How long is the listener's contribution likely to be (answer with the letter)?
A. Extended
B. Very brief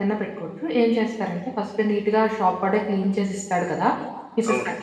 B